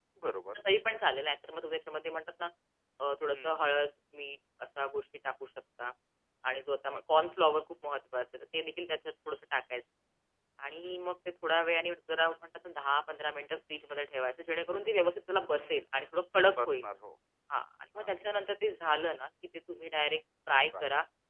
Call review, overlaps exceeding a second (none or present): none